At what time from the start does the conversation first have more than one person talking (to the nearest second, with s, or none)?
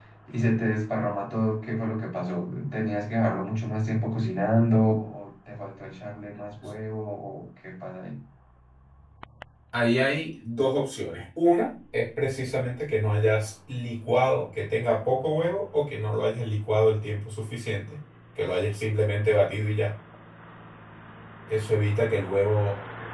none